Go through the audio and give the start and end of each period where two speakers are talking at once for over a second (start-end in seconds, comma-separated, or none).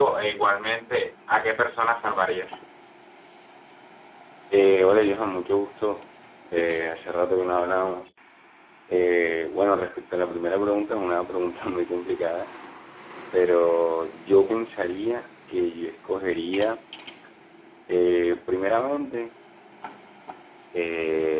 none